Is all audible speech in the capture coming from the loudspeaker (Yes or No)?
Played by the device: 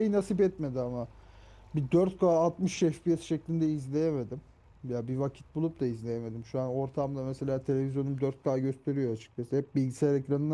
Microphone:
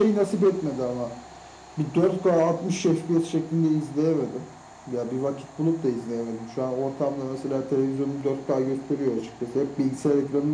Yes